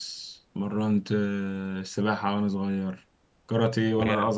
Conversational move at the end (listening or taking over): listening